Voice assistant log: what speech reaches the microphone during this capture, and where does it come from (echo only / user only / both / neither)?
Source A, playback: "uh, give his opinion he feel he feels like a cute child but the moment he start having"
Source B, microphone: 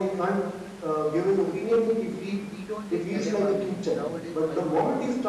both